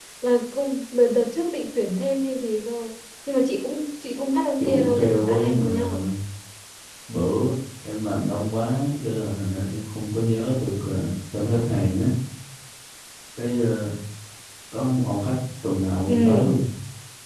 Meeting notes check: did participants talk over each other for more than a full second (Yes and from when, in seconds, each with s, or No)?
Yes, from 4.6 s